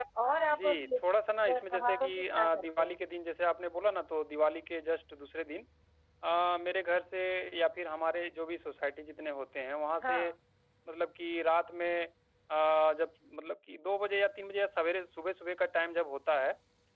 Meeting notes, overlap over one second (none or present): present